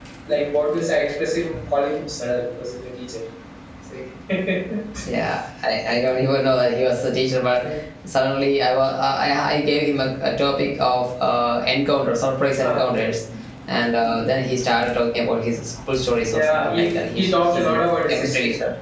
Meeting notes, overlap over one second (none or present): present